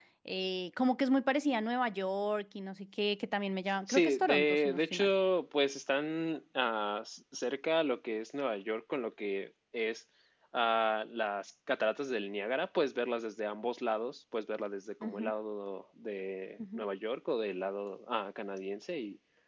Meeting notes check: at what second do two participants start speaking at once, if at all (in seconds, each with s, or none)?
3.9 s